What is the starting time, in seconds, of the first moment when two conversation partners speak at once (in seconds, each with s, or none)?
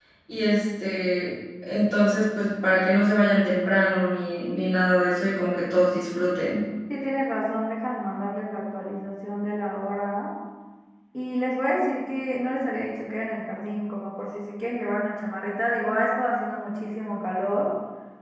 none